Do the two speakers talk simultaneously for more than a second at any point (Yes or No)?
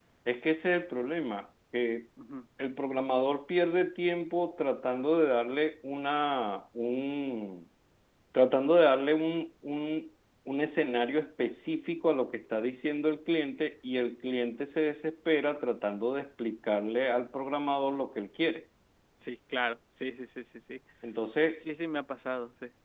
No